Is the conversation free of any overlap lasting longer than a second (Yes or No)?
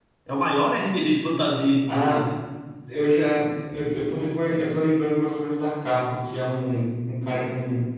Yes